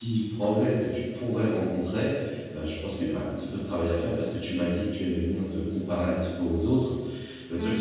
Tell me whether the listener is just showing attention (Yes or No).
Yes